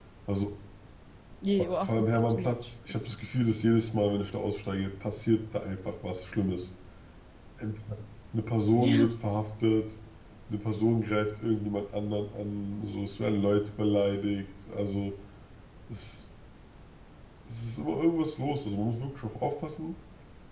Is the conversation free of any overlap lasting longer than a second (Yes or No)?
No